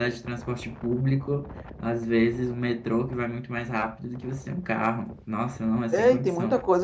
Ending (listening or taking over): taking over